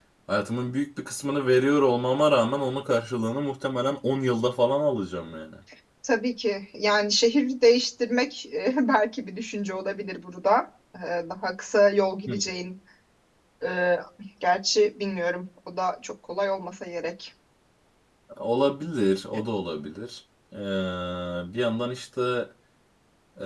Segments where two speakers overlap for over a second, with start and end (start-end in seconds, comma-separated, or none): none